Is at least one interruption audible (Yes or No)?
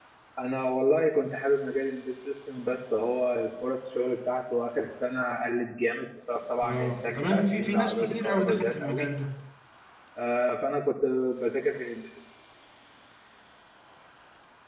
Yes